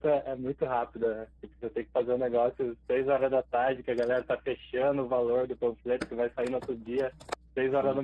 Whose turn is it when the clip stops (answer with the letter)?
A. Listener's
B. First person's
B